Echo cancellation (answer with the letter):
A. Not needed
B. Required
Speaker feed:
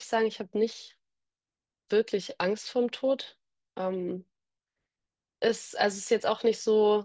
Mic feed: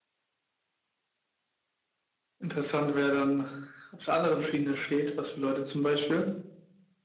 A